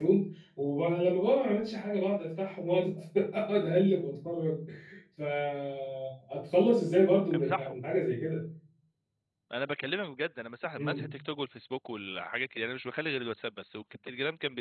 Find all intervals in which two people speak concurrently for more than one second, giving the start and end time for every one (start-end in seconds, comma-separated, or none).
none